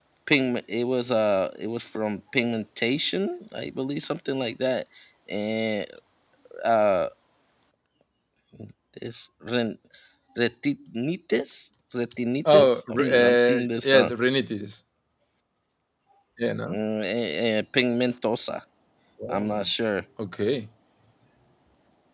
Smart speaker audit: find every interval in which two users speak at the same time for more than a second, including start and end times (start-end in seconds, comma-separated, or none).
12.5-13.9